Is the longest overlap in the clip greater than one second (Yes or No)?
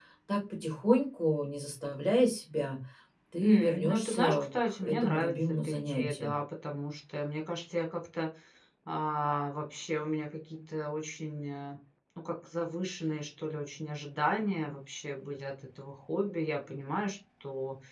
Yes